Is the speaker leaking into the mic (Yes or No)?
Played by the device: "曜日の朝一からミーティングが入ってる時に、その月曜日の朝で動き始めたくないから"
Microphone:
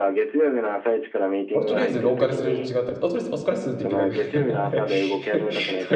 Yes